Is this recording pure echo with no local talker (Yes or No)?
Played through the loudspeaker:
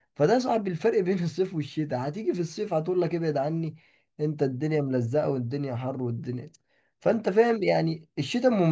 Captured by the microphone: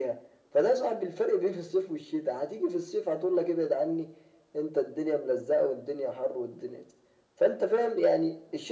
Yes